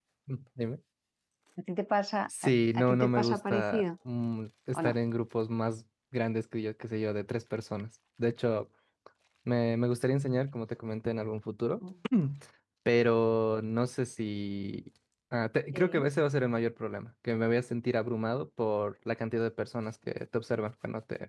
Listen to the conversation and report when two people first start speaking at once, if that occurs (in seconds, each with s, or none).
2.4 s